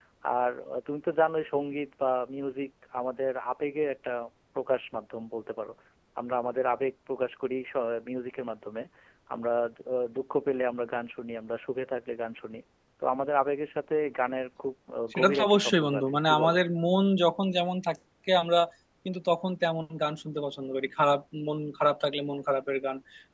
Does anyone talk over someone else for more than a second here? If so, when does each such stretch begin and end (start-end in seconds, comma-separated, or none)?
15.1-16.6